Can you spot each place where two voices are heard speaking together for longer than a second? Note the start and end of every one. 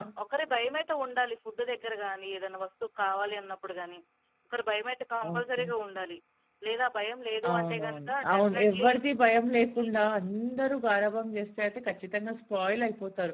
7.5-8.9

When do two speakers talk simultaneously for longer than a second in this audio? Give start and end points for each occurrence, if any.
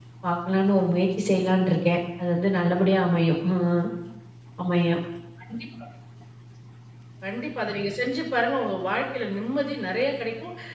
none

